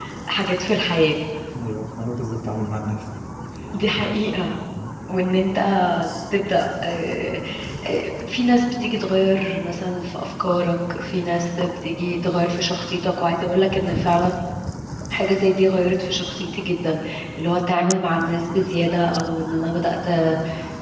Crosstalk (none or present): none